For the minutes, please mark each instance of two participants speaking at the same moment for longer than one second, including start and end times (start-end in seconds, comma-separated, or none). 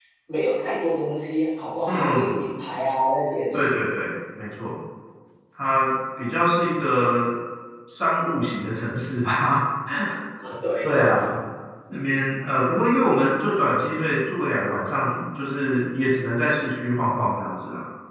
none